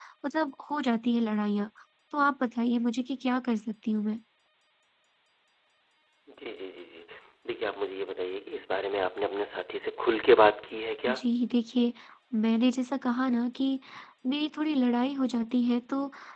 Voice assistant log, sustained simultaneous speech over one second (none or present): none